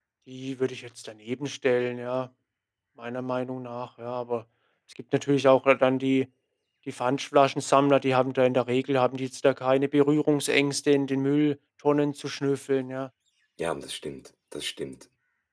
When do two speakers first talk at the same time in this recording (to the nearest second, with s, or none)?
none